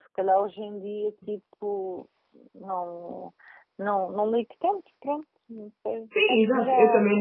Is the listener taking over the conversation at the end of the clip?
Yes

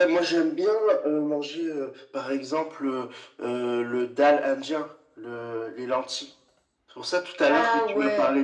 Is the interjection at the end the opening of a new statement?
No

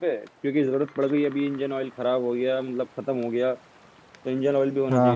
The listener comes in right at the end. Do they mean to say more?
Yes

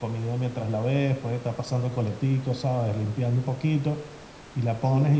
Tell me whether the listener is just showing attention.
Yes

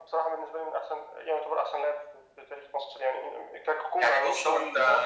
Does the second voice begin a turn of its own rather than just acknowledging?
Yes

